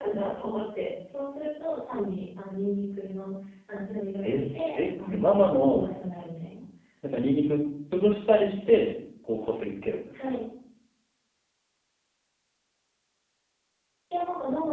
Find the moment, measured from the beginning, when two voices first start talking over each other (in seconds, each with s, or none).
4.2 s